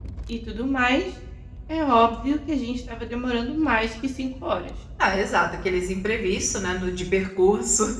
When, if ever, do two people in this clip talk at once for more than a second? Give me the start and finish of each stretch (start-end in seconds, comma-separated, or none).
none